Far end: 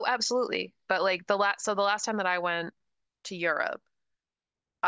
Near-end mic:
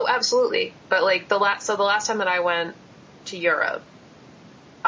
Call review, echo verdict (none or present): present